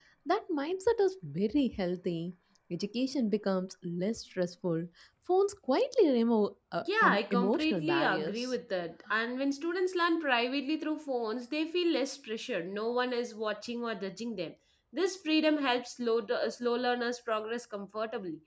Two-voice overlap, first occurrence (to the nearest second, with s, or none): 7 s